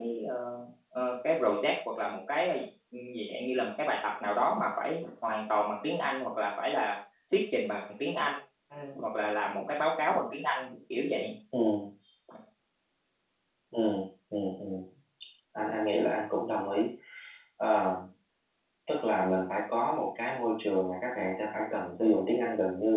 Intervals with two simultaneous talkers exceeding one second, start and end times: none

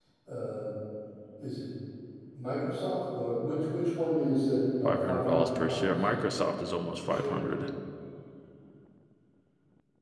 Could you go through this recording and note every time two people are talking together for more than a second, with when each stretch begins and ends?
4.8-6.1

